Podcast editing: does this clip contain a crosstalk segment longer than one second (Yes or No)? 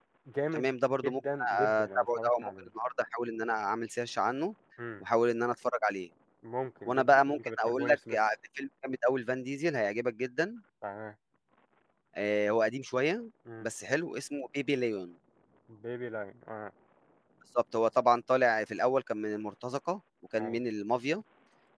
Yes